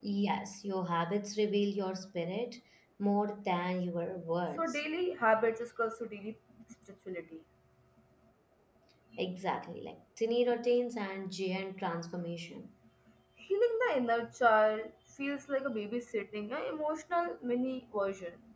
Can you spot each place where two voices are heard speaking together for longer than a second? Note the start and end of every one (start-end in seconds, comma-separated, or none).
none